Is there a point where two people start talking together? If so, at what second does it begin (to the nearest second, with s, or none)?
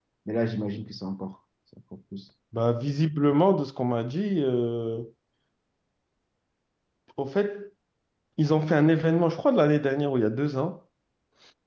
none